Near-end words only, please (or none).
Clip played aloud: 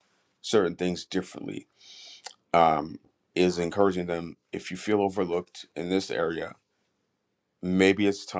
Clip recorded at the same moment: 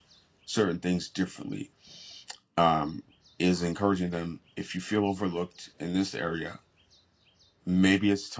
none